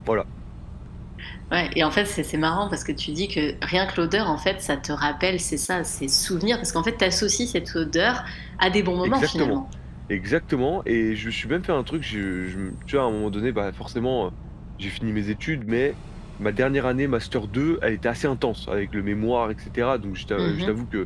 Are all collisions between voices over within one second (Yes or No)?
Yes